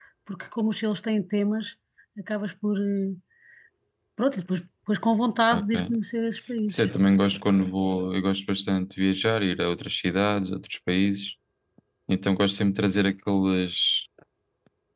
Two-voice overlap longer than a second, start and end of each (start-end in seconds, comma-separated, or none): none